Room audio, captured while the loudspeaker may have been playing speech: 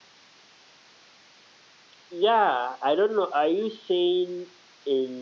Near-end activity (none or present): none